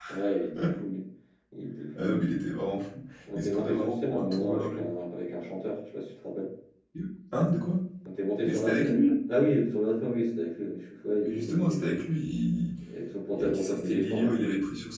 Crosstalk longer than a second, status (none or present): present